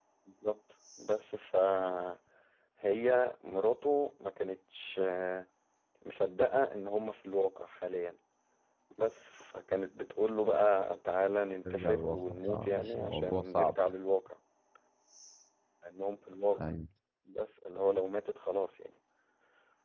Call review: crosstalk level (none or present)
present